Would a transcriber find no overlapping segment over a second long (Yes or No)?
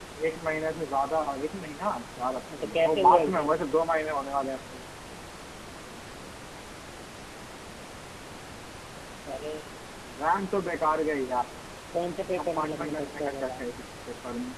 No